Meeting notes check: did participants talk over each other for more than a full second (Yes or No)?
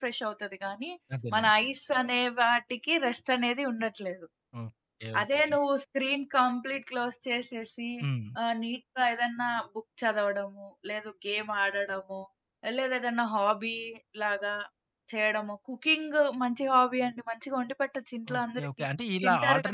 No